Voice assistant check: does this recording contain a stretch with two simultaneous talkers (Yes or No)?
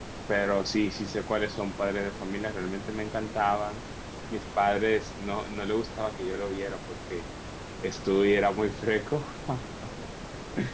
No